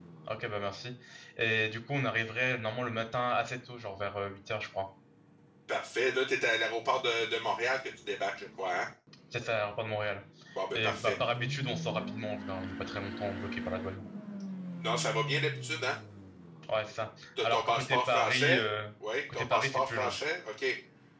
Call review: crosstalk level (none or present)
present